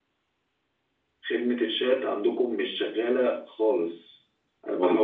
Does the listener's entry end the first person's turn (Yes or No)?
No